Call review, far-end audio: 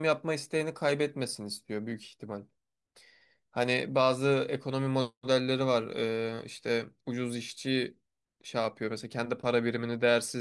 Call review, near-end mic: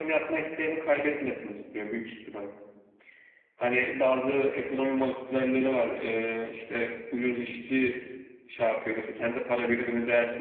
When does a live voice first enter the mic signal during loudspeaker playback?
none

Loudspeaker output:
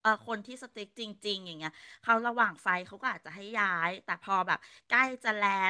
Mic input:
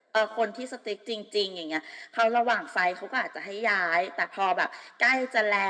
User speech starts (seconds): none

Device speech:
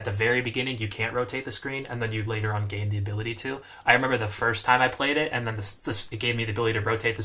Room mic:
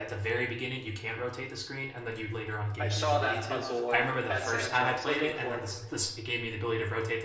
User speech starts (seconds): 3 s

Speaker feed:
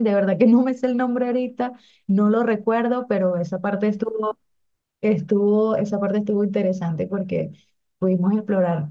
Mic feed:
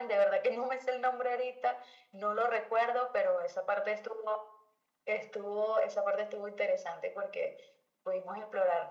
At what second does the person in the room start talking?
none

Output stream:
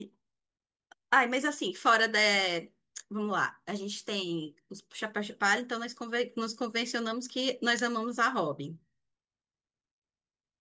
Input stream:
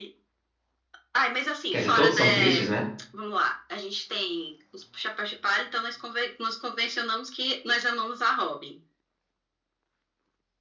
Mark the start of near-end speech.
2 s

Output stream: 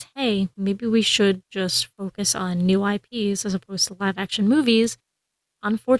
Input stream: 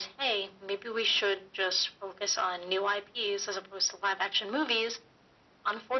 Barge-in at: none

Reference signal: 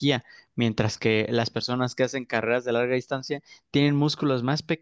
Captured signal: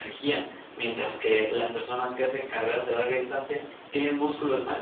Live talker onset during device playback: none

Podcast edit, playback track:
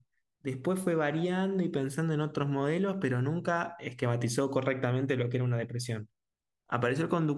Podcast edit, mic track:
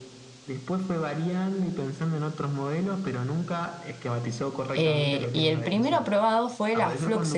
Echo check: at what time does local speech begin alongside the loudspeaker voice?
5 s

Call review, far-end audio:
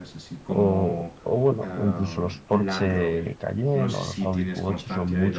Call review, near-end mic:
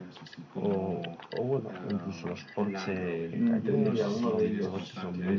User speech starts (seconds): 3 s

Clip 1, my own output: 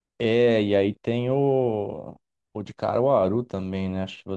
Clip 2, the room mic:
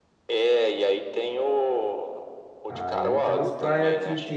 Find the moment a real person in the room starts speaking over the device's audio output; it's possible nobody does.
3 s

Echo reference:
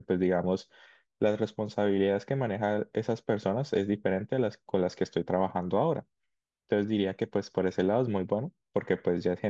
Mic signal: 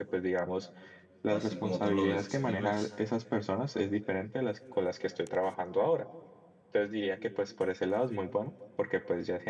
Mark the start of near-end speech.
1 s

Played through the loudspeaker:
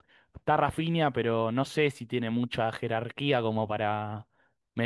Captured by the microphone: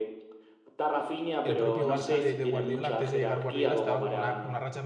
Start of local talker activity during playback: 1 s

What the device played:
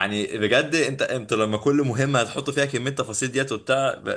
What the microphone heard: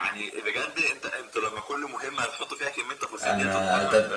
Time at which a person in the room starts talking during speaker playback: 3 s

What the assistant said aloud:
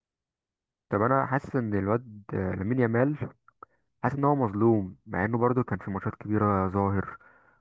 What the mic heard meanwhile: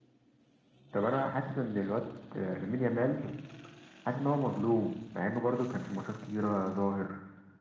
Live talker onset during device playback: none

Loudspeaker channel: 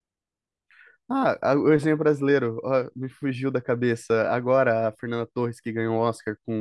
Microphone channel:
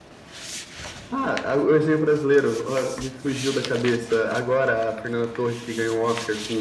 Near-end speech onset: none

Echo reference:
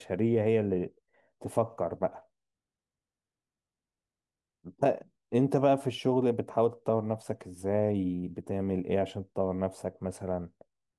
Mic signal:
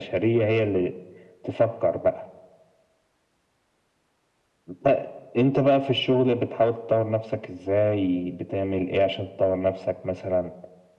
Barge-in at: none

